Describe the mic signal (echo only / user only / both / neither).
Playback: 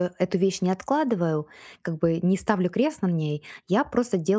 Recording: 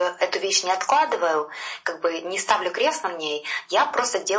echo only